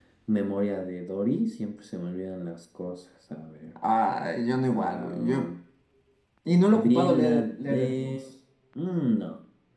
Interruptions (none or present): present